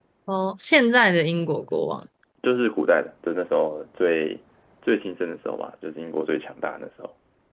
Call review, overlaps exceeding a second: none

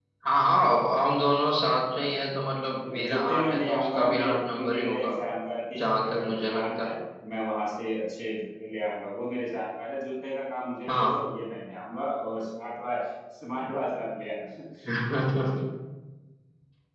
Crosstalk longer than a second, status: present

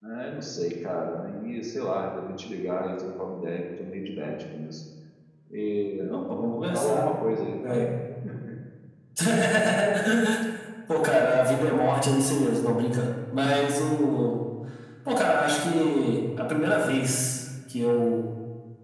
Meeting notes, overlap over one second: none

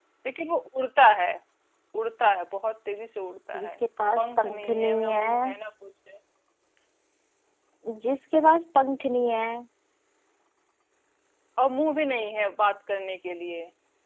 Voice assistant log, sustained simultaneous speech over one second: present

